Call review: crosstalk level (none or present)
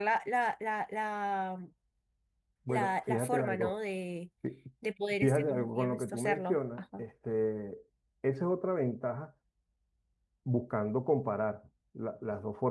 present